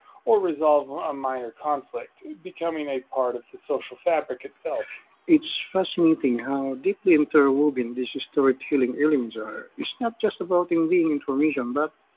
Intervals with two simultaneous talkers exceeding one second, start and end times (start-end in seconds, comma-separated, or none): none